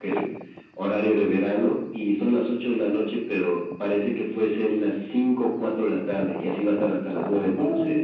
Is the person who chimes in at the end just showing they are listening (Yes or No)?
No